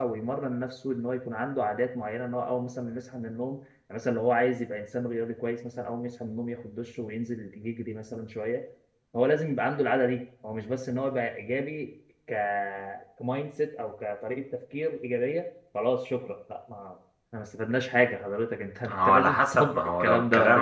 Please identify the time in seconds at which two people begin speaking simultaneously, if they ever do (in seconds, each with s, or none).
18.9 s